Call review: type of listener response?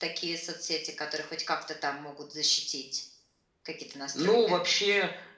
taking over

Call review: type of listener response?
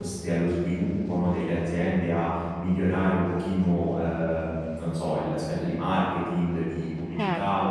listening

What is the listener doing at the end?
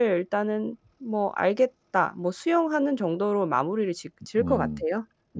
taking over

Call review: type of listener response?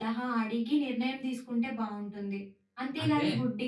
listening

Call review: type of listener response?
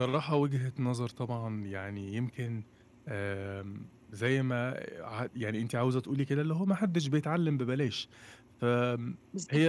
listening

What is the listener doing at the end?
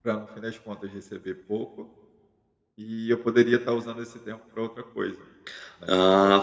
taking over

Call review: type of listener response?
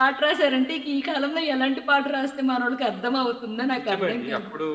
taking over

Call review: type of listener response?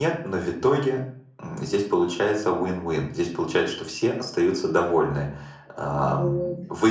listening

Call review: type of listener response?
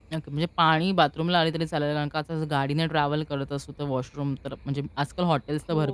listening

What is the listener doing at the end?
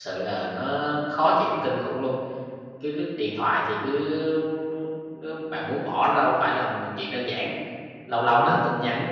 listening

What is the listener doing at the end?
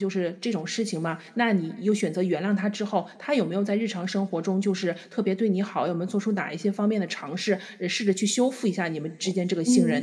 taking over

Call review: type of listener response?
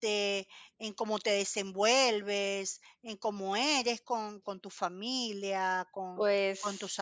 listening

